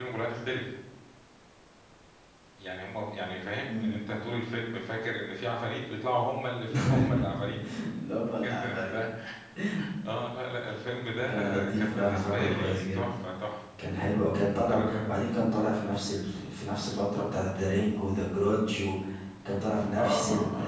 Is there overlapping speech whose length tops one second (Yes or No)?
Yes